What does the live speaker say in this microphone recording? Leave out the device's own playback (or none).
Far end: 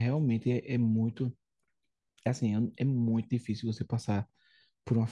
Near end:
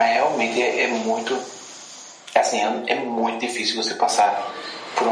none